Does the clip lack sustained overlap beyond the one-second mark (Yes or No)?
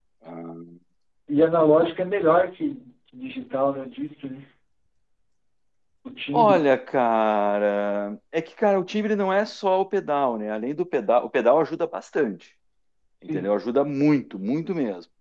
Yes